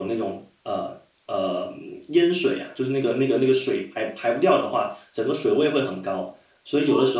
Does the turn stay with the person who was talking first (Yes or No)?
Yes